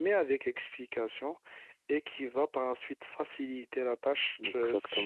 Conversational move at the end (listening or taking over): listening